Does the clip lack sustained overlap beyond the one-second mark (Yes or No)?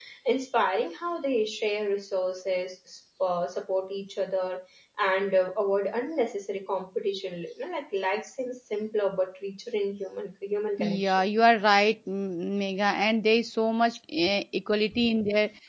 Yes